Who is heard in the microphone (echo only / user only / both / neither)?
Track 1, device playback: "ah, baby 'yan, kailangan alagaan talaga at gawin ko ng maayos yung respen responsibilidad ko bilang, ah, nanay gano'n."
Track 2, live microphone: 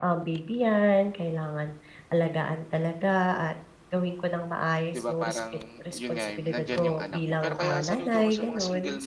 both